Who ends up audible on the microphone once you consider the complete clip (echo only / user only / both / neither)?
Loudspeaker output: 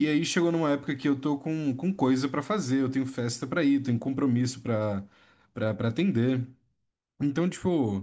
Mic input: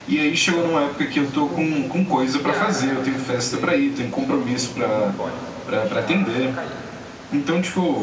both